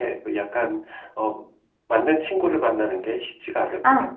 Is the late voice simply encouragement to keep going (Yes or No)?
No